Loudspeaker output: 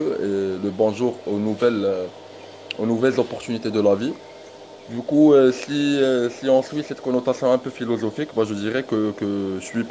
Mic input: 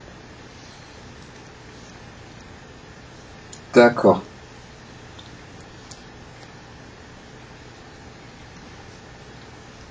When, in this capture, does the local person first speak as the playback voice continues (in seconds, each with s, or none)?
3.7 s